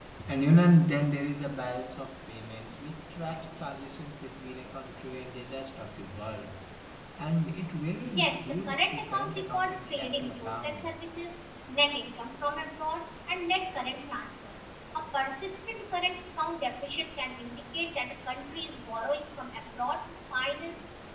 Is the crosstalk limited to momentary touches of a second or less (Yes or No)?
No